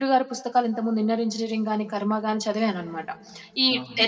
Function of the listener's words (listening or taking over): listening